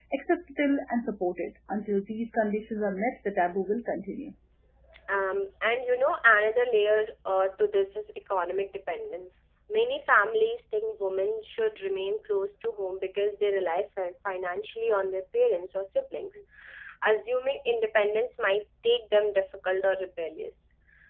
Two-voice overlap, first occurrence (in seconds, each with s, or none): none